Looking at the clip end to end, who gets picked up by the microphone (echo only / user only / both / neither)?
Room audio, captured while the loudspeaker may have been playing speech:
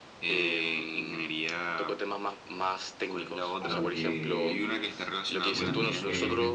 both